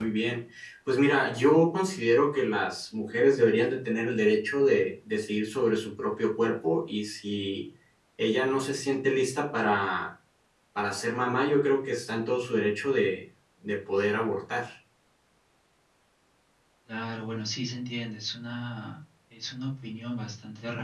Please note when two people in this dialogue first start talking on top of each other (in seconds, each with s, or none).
none